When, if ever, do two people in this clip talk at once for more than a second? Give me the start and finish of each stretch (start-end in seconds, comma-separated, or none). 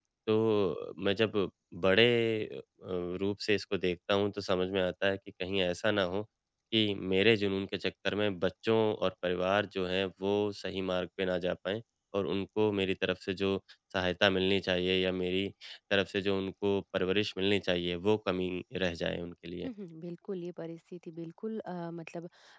none